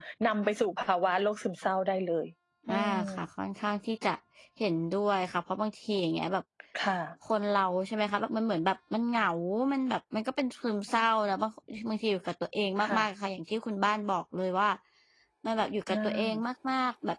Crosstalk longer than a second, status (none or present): none